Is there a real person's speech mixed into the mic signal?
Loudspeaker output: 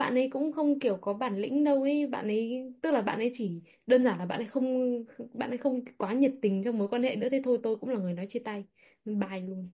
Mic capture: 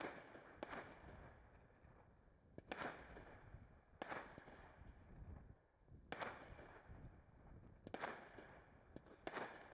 No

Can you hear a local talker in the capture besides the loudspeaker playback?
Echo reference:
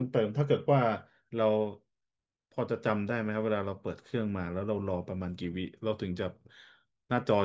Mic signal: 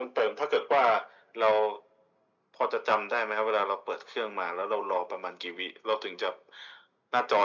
No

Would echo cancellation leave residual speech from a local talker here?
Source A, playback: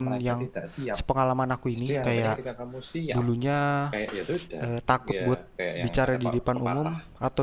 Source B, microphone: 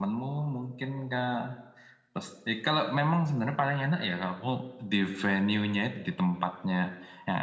Yes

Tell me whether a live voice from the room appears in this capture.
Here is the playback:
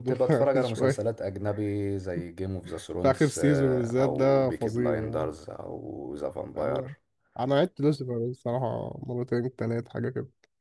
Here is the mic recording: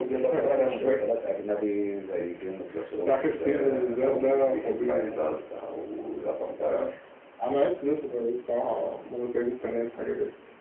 No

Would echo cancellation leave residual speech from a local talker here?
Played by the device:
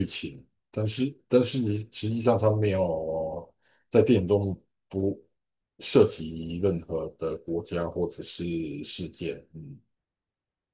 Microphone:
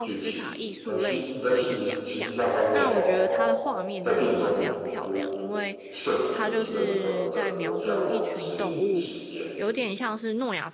Yes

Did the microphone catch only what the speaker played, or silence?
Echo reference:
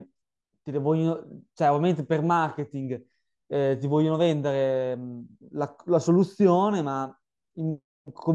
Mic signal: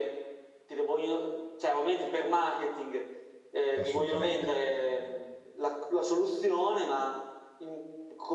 No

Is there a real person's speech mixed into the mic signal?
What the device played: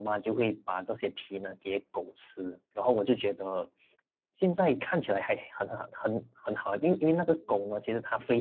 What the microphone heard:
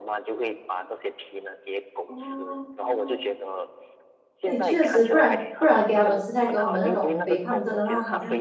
Yes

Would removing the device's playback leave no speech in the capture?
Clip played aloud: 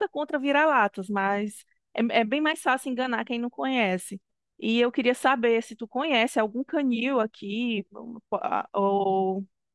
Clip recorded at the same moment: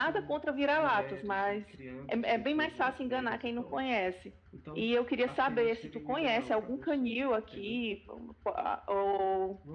No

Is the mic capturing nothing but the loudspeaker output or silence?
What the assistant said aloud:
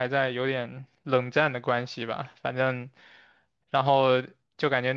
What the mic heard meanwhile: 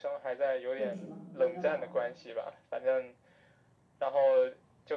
No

